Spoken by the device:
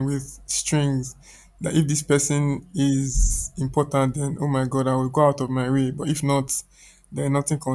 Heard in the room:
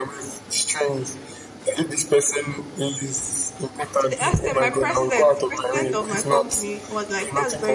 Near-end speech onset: 4.0 s

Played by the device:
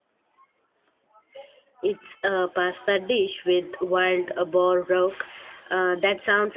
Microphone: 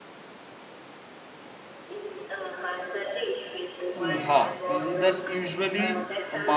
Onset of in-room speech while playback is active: 4.0 s

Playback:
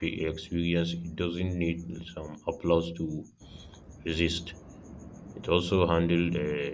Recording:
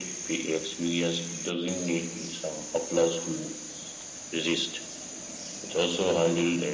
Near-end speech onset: none

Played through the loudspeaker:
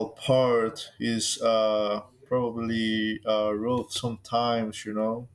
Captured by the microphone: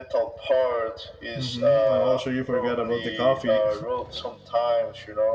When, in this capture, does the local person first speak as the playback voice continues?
1.3 s

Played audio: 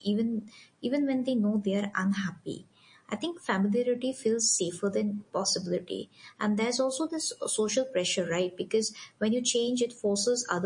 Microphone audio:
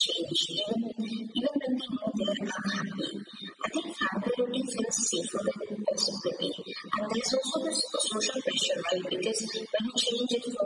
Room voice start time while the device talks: none

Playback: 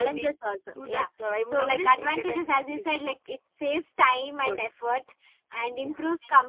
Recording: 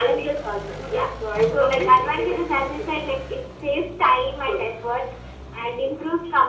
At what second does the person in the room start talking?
none

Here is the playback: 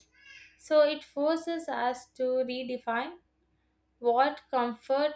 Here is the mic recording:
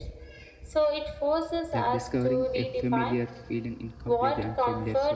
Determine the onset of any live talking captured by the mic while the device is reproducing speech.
1.7 s

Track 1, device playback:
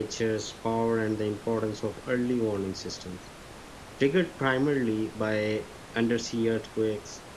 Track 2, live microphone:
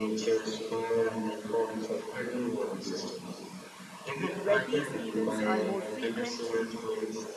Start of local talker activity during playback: 4.4 s

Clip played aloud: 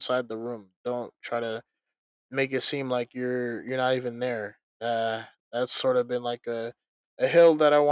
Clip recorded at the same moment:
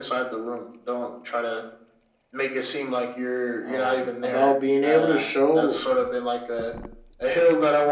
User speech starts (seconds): 3.6 s

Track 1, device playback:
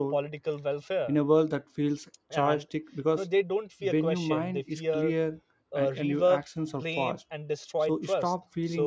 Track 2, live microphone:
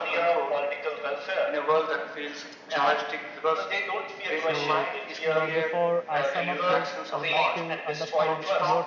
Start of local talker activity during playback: 4.3 s

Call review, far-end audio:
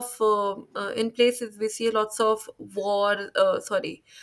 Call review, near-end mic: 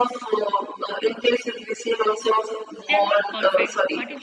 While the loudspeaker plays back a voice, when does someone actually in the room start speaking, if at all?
2.9 s

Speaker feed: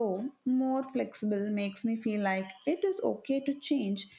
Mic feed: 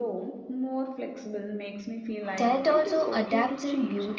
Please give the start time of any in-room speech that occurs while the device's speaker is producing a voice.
2.4 s

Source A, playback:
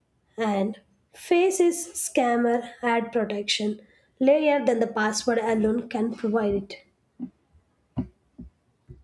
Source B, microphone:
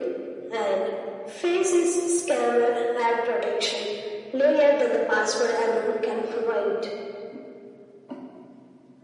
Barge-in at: none

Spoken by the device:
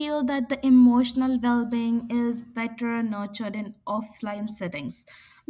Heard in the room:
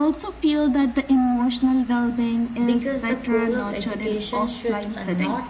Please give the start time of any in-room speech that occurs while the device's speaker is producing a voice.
2.6 s

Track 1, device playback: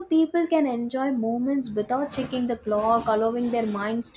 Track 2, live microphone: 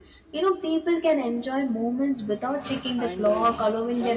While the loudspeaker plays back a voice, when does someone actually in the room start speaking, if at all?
3.0 s

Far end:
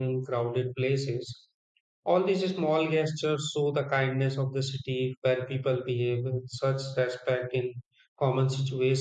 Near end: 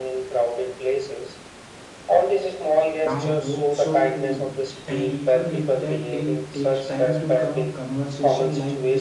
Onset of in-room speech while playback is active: 3.0 s

